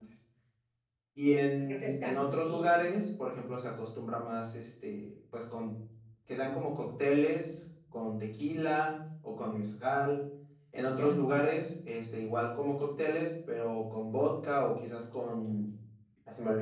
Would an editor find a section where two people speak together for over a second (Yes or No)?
Yes